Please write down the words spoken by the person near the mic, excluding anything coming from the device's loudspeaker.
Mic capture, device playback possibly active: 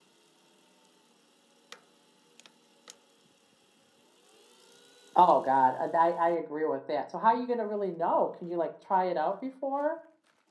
Oh, god. Uh, I I agree with that. So how are you gonna really know? Can you, like, try it out before?

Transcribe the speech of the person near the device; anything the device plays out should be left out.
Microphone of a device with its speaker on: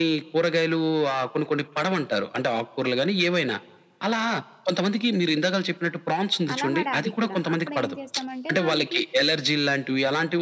అలా మా డాడీ కూడా. అప్పుడేం చేస్తామంటే వాళ్ళకి

